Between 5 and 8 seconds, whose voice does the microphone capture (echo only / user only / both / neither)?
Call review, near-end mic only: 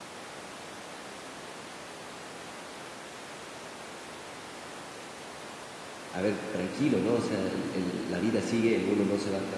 user only